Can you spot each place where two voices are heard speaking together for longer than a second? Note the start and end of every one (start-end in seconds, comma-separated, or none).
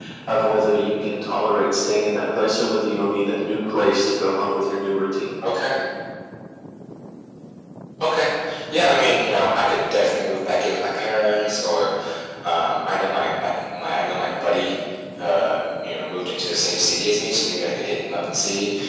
none